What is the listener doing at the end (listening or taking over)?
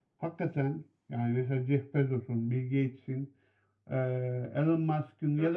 listening